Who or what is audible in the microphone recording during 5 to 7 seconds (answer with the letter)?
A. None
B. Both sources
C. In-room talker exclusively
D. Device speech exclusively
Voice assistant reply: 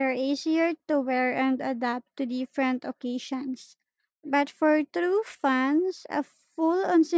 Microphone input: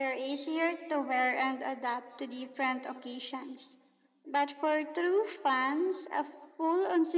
D